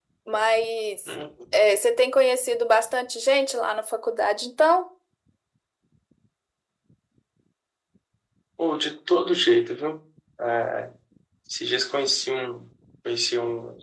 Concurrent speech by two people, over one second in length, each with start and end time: none

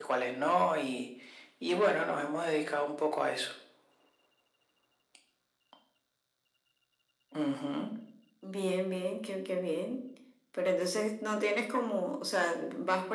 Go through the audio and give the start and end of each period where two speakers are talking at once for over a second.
none

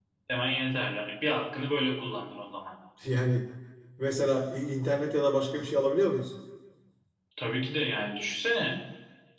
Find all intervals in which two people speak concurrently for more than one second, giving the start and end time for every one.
none

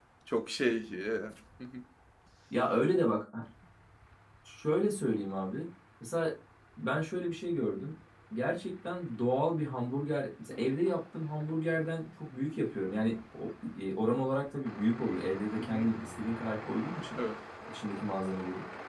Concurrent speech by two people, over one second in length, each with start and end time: none

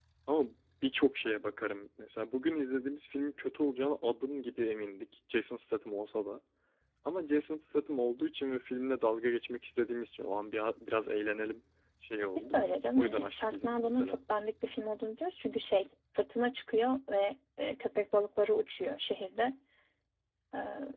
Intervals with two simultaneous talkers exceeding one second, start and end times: 12.4-14.2

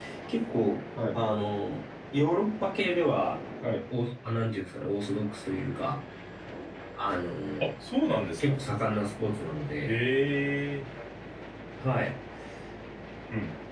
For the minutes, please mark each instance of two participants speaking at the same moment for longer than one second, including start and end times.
none

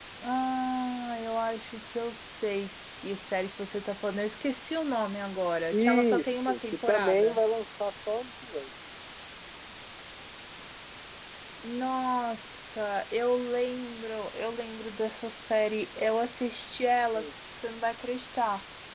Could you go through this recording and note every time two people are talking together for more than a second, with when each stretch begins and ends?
5.7-7.4

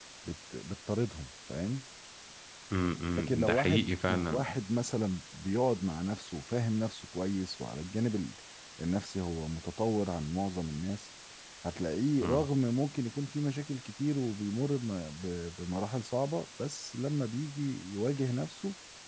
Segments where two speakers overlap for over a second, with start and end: 3.2-4.4

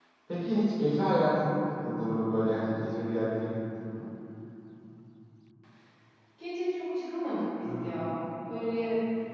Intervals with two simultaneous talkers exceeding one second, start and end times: none

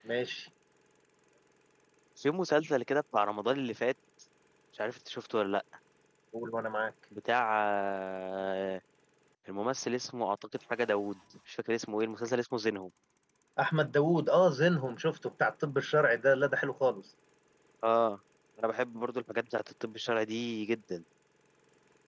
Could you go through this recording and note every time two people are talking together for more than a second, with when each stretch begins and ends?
none

